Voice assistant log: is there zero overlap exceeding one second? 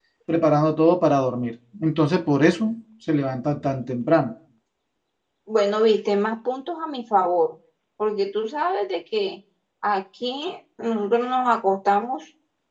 Yes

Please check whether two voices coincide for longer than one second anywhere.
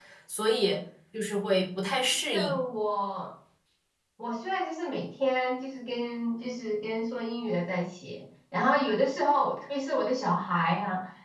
No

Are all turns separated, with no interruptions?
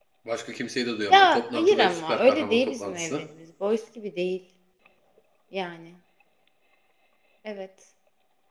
No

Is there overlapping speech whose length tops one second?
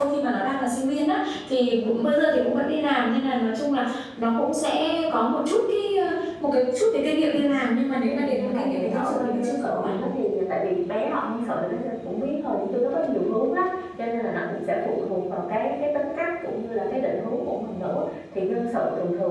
Yes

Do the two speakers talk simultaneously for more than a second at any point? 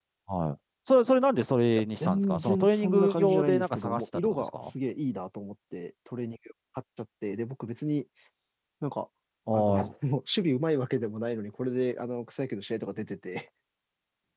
Yes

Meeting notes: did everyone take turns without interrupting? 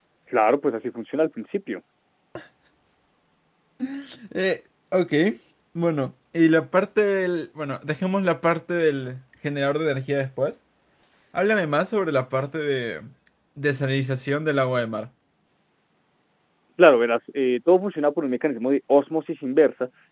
Yes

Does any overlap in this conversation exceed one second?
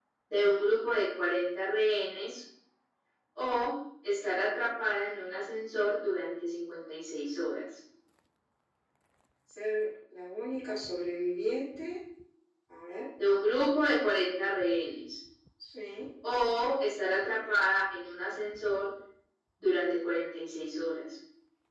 No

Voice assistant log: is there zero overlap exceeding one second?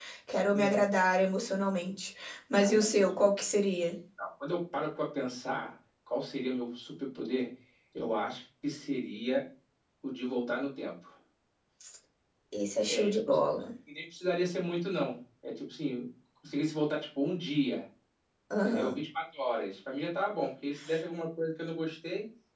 Yes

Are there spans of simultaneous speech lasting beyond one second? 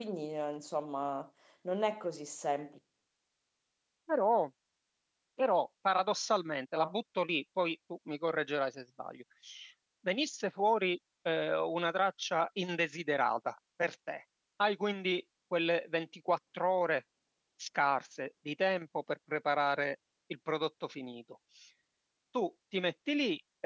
No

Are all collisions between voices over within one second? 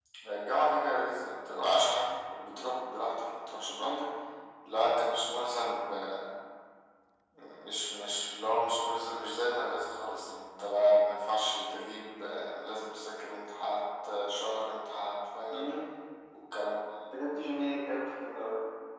Yes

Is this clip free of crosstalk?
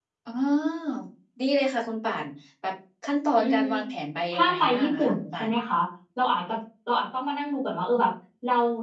No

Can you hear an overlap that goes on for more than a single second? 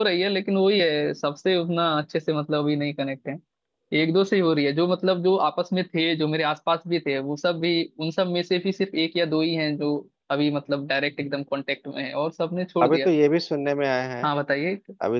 No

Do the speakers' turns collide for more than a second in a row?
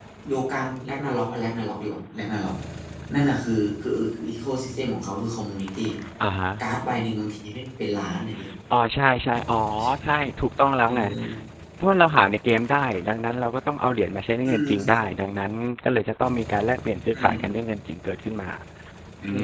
No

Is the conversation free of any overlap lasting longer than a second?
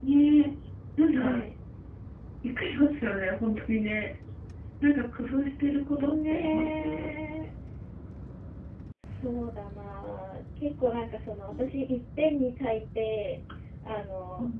No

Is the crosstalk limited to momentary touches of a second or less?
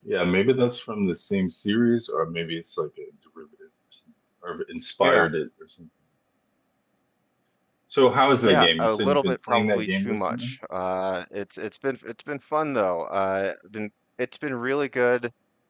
No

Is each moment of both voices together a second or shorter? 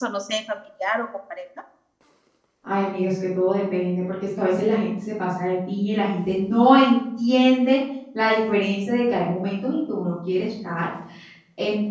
Yes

